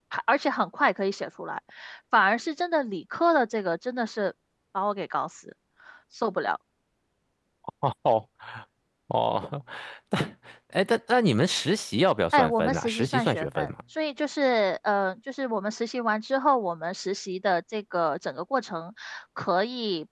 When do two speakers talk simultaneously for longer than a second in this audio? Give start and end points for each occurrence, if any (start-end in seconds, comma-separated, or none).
12.3-13.7